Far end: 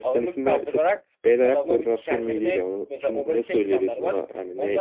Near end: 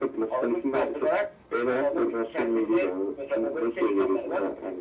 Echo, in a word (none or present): present